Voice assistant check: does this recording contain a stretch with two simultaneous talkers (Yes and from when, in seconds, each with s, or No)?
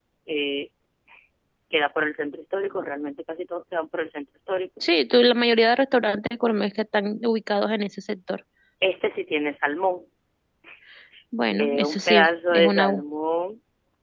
Yes, from 11.5 s